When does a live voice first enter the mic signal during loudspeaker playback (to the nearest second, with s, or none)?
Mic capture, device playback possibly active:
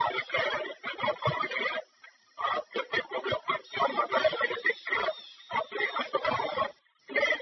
none